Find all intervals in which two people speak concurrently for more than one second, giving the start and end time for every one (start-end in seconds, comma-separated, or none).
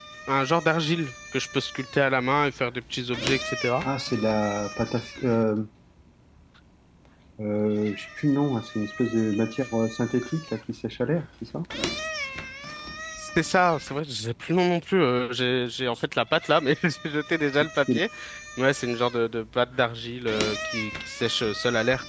none